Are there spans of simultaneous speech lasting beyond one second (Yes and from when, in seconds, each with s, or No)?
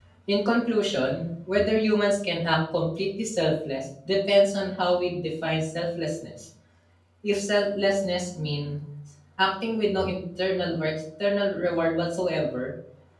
No